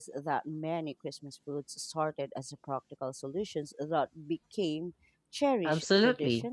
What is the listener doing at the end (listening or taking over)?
taking over